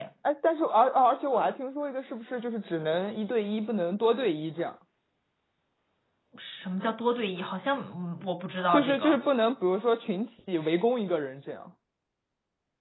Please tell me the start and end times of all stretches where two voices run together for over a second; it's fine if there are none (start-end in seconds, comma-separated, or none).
none